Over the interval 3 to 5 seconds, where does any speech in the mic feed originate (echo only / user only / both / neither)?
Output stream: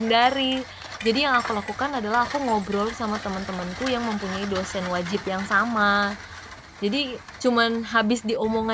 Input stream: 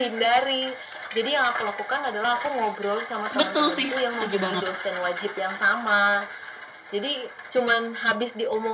both